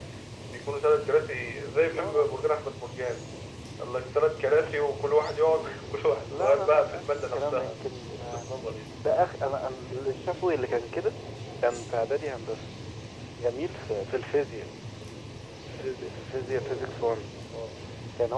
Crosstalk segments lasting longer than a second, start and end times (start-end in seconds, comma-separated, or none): 6.3-7.8